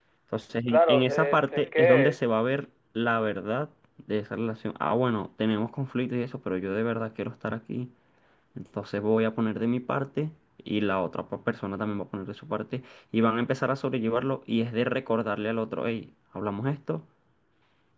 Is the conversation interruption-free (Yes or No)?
No